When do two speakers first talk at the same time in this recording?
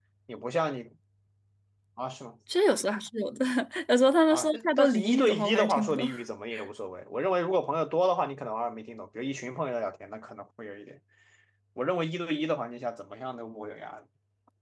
4.3 s

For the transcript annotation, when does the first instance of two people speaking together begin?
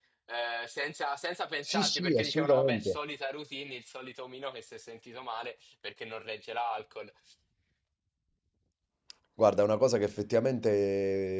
1.6 s

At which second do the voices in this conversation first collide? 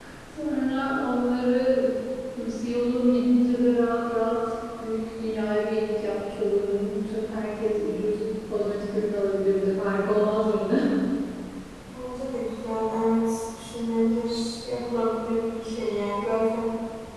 none

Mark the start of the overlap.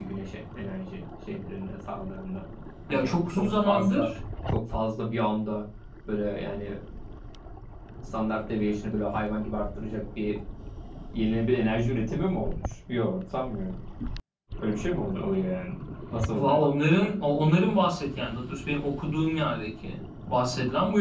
2.9 s

